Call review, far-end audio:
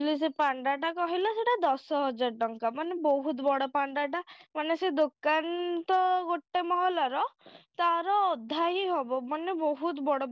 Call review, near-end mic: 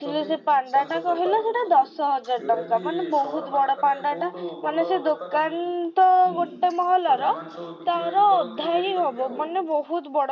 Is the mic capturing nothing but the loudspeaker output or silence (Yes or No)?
No